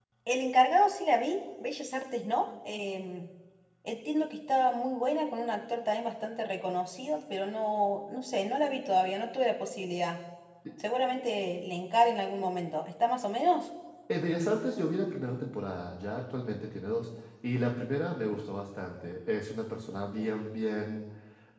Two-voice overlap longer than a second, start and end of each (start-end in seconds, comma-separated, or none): none